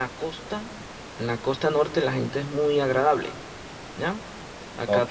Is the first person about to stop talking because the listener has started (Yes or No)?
Yes